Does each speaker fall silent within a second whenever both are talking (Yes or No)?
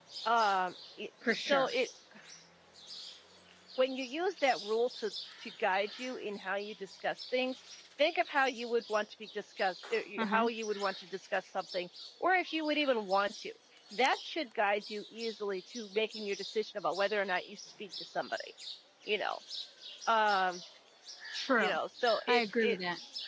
Yes